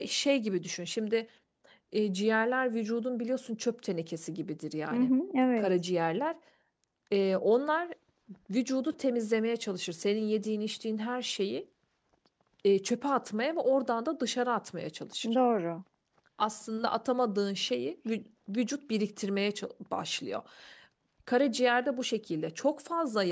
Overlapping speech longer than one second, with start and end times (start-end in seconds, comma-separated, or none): none